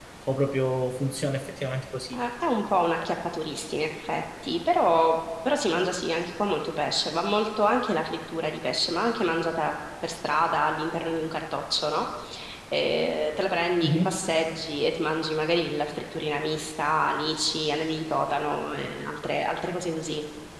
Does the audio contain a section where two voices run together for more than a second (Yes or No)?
No